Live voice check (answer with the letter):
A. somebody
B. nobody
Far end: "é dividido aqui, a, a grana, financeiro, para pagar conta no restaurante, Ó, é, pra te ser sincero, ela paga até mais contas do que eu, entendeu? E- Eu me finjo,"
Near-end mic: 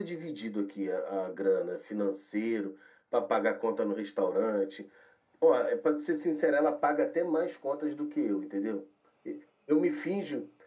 B